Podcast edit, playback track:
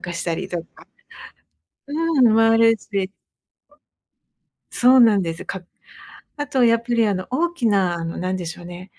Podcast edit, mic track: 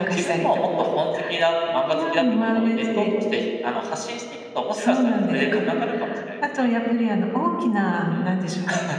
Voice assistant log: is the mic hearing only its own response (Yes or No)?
No